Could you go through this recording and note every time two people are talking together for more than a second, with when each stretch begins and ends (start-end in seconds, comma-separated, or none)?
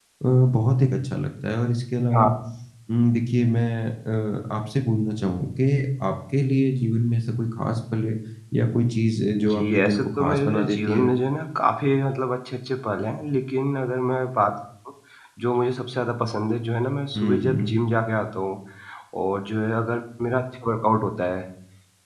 9.4-11.1